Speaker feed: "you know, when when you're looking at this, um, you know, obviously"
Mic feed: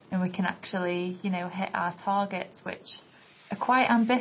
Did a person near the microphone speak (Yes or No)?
Yes